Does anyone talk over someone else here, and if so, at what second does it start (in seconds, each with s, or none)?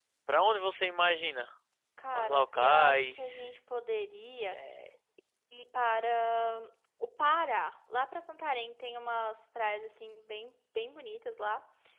2.1 s